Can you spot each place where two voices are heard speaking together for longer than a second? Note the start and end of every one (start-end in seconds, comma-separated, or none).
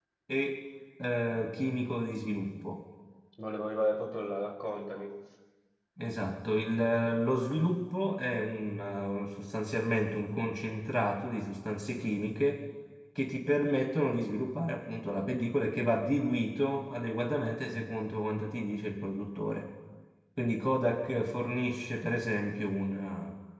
none